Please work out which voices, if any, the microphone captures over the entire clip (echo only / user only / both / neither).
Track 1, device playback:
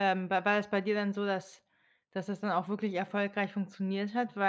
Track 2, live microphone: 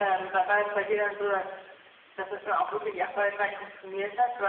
echo only